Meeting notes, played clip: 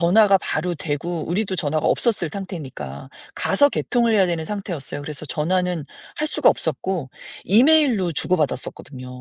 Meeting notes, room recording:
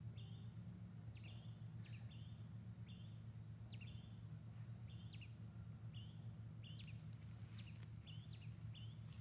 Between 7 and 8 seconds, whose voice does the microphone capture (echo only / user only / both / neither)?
neither